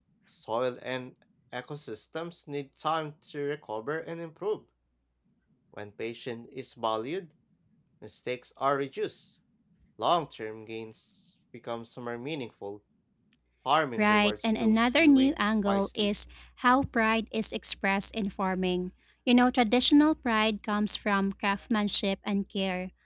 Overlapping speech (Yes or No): Yes